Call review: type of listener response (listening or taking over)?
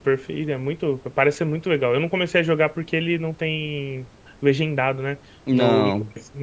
listening